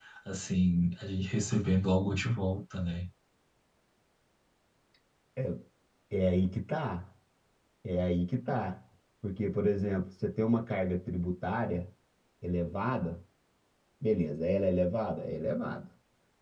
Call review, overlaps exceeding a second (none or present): none